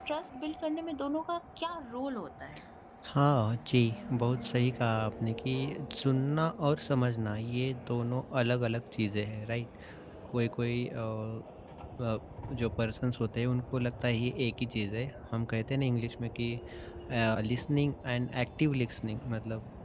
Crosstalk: none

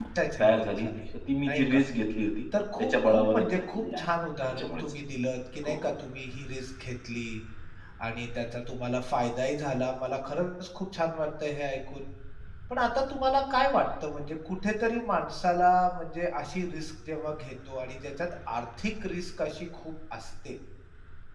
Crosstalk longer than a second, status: present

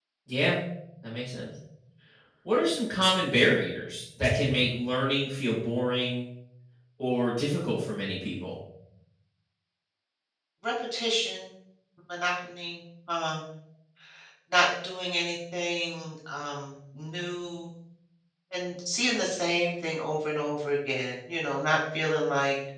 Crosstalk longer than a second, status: none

